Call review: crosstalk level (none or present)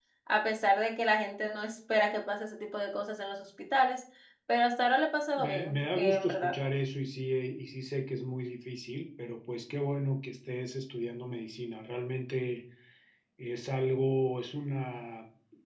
present